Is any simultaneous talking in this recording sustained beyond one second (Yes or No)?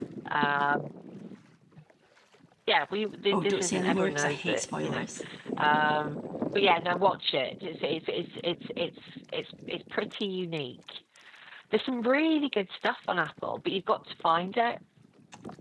Yes